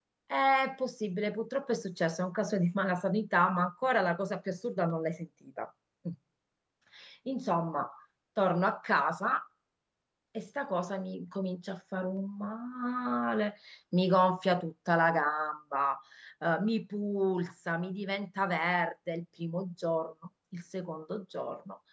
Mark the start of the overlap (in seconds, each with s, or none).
none